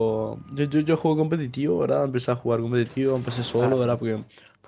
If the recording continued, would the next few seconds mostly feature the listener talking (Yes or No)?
No